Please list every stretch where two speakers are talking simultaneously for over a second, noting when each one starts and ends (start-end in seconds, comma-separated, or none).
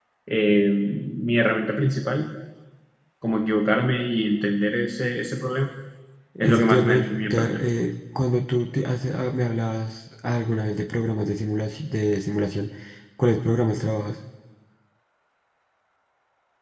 6.4-7.6